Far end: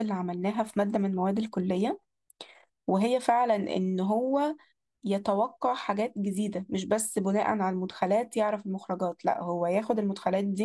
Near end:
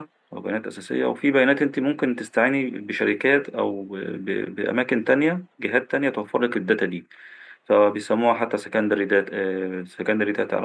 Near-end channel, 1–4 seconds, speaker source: user only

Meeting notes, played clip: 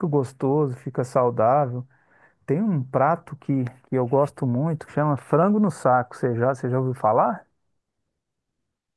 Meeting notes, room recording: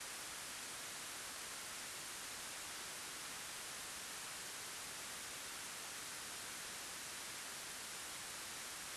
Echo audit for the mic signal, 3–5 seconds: neither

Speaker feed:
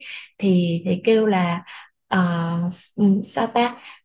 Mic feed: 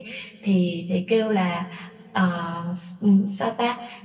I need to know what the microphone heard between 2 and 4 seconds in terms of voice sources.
echo only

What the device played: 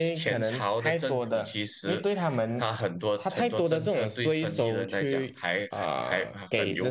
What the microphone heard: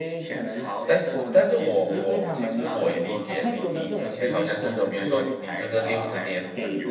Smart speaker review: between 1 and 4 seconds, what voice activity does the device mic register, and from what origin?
both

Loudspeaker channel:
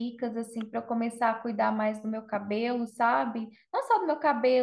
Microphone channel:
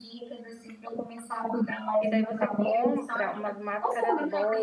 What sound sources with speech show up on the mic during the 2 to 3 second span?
both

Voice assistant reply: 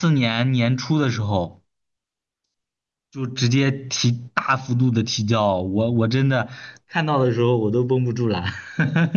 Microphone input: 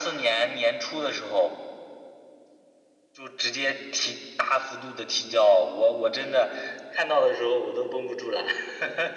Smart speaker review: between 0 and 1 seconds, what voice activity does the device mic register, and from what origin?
echo only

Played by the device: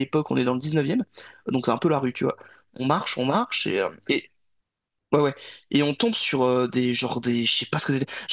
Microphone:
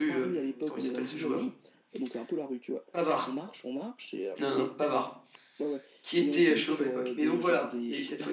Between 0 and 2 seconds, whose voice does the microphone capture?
both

